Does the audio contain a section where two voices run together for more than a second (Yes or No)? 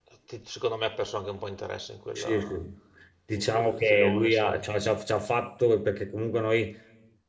Yes